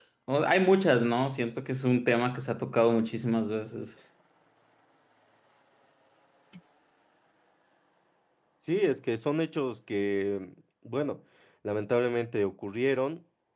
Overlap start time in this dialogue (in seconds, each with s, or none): none